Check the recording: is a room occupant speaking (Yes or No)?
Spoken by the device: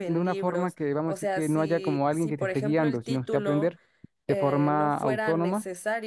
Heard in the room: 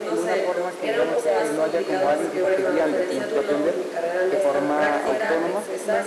Yes